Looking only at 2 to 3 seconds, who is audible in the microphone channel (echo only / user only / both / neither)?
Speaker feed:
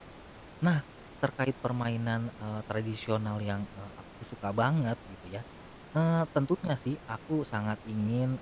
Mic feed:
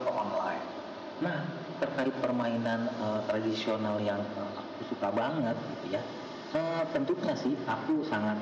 echo only